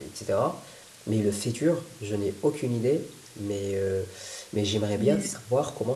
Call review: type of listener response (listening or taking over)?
listening